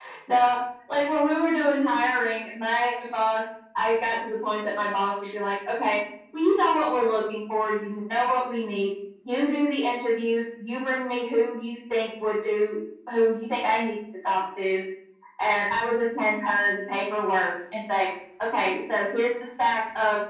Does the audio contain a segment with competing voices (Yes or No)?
No